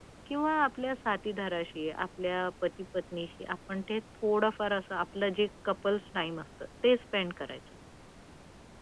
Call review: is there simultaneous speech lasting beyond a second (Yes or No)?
No